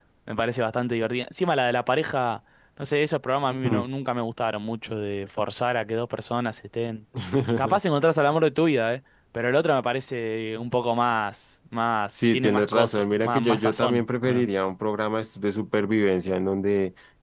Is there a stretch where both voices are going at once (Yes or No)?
Yes